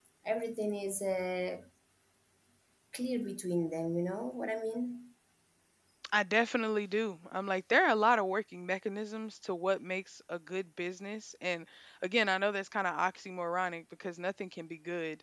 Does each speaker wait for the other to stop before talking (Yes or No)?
Yes